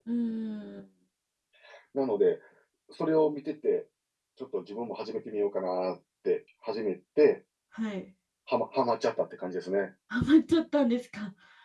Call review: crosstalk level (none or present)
none